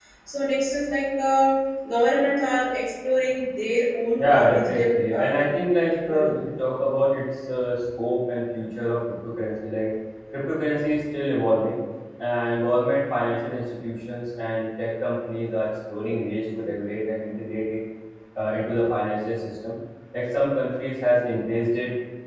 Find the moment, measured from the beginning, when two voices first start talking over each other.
4.2 s

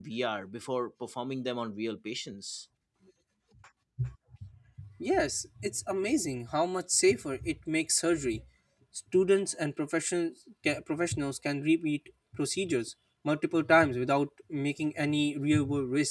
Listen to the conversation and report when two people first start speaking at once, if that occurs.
none

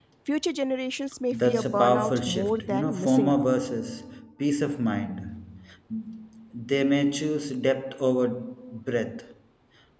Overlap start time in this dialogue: 1.3 s

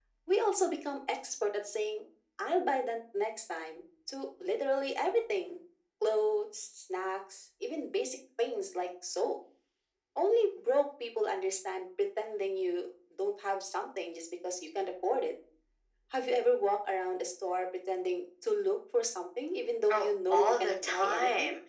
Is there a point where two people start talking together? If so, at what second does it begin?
19.9 s

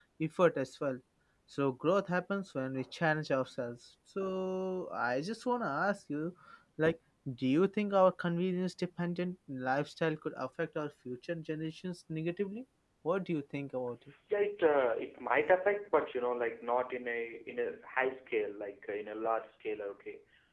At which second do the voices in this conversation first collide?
none

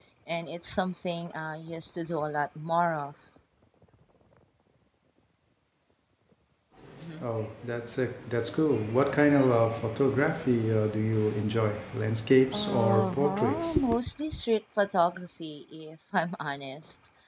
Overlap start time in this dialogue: 12.5 s

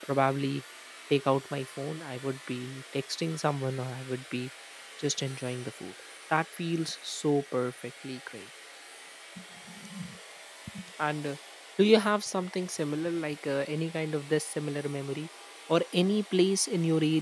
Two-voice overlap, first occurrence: none

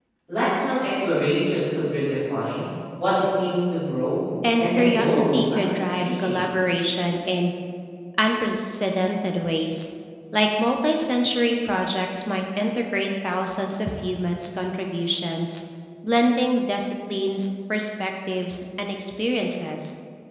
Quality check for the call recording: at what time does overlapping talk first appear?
4.4 s

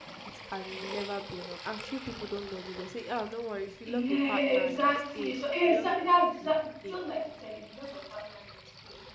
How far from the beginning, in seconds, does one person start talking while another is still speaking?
3.8 s

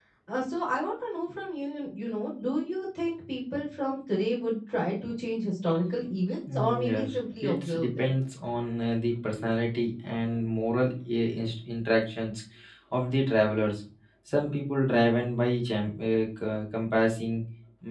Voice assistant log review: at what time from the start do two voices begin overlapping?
6.6 s

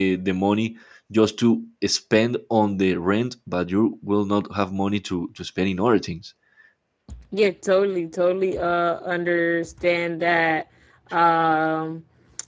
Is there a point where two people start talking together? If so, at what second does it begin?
none

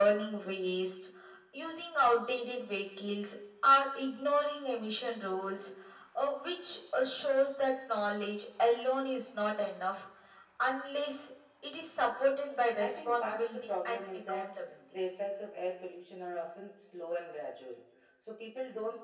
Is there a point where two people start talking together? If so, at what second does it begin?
12.8 s

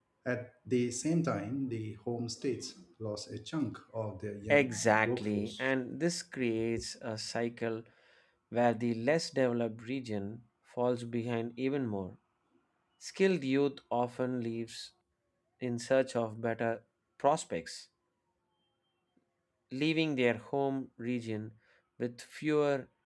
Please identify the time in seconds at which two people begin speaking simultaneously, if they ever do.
4.5 s

